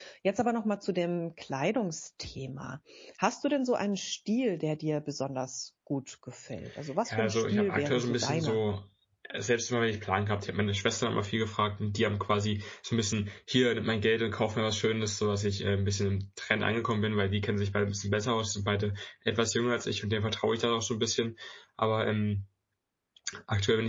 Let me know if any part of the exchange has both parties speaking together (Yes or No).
Yes